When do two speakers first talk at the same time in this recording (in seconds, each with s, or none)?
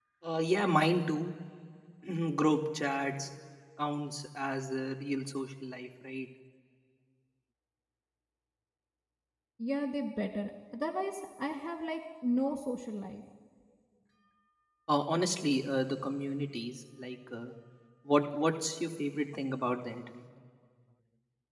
none